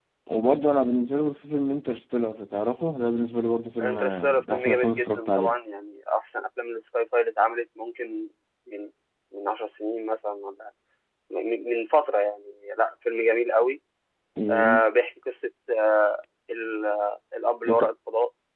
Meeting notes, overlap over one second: present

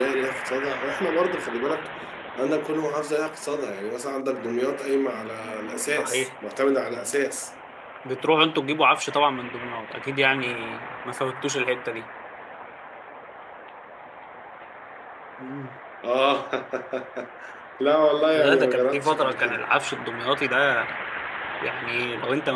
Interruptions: present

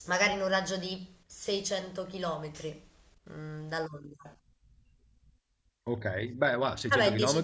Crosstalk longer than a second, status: none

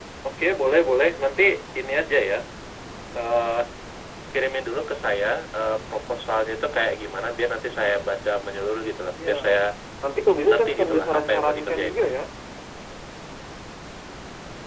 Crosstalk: present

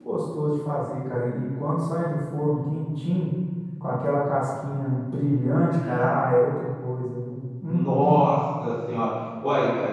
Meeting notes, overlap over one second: none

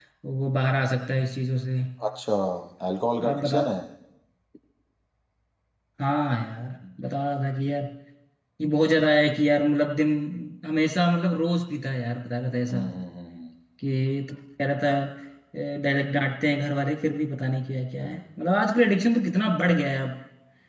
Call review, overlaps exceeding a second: none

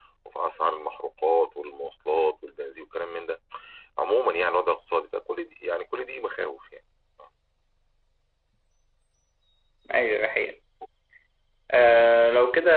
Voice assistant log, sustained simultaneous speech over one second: none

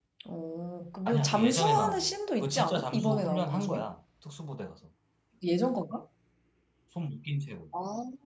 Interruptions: present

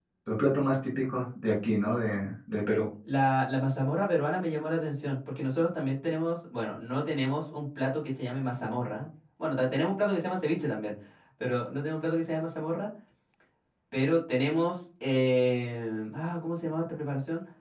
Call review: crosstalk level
none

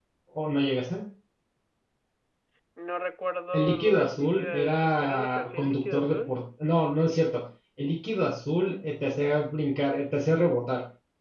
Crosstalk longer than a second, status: present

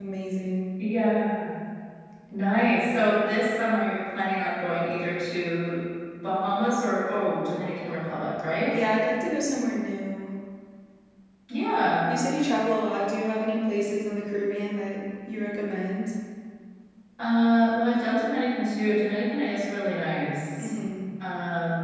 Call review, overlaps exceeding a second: none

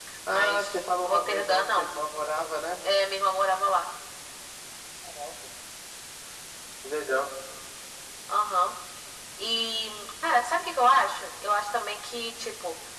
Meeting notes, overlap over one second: present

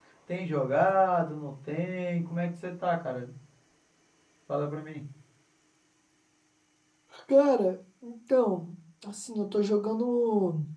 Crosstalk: none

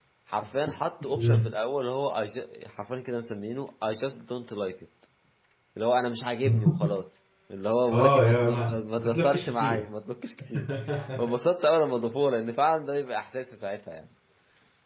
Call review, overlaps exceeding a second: present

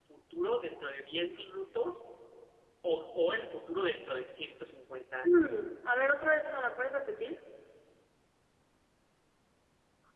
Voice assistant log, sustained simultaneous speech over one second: none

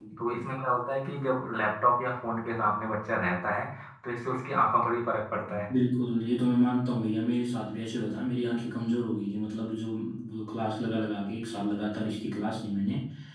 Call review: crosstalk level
none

